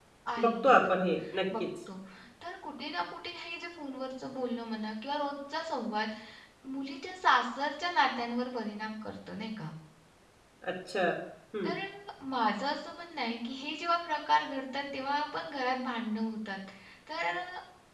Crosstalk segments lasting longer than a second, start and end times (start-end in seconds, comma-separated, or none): none